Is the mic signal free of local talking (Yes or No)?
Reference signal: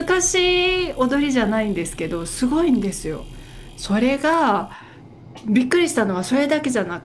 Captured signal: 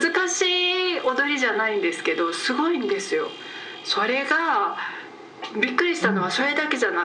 No